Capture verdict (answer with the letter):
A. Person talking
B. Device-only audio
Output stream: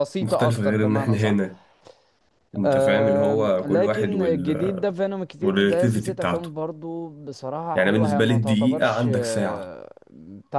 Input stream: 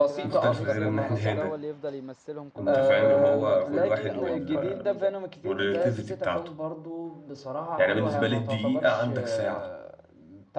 A